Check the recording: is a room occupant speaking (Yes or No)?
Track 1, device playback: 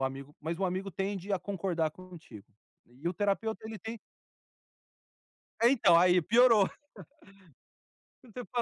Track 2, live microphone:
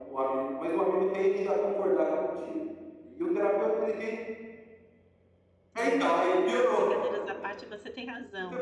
Yes